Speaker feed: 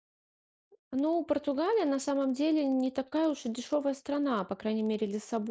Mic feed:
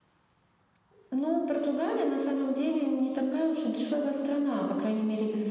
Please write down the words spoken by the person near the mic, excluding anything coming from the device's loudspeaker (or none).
none